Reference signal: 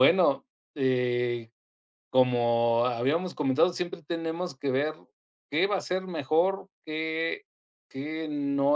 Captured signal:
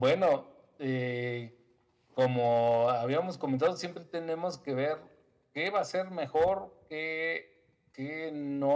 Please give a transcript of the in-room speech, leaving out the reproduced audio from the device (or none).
none